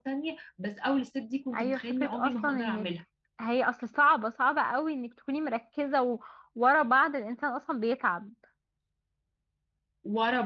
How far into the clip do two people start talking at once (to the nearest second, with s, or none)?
2 s